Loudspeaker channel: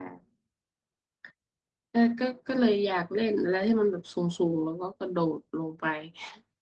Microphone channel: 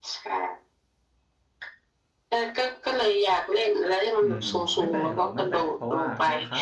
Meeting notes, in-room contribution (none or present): present